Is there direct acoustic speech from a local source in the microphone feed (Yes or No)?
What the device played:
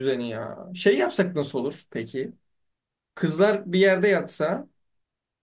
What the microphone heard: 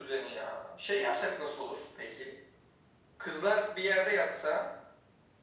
No